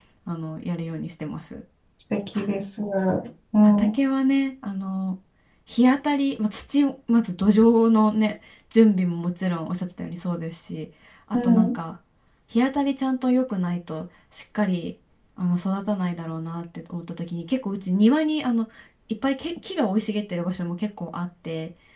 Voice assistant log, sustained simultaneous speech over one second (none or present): none